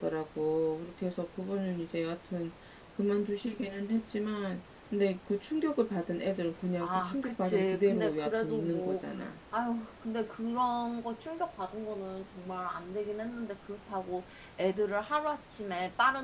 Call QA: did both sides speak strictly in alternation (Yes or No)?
No